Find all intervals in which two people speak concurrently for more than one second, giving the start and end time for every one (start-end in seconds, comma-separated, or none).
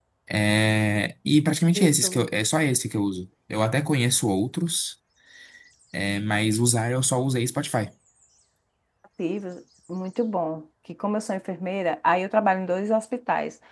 none